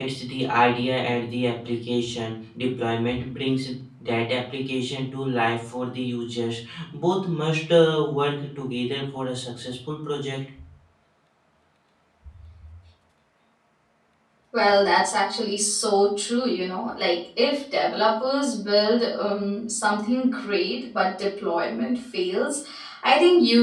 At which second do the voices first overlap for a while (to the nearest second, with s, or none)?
none